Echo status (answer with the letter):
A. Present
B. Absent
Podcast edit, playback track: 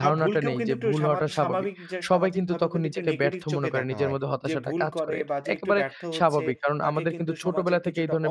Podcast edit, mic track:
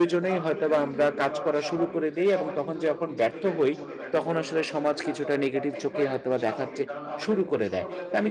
A